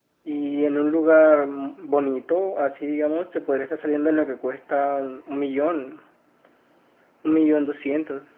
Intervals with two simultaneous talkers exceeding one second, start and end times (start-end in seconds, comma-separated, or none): none